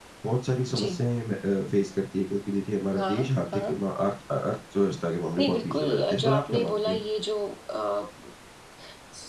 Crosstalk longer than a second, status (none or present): present